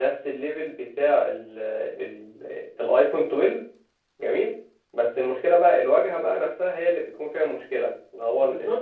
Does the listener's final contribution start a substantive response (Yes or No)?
Yes